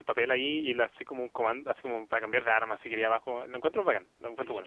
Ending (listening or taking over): taking over